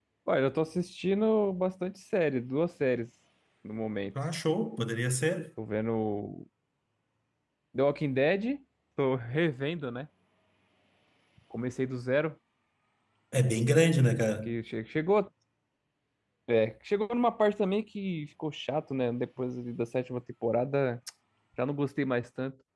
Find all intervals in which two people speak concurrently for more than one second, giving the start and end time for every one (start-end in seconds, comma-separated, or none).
none